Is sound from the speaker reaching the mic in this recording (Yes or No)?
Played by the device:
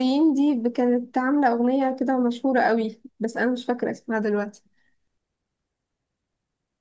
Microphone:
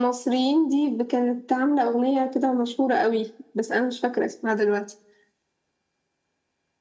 Yes